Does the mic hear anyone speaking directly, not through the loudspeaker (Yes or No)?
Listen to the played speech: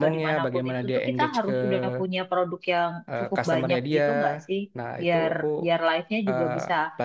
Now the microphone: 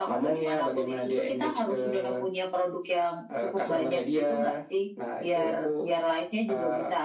No